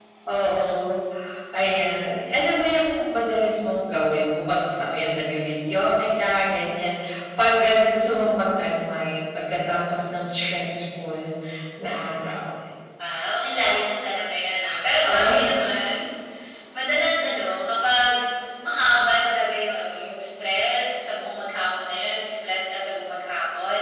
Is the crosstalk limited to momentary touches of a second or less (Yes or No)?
Yes